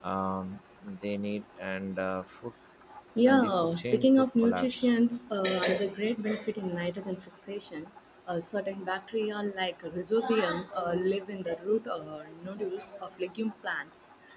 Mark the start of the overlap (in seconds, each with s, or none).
3.3 s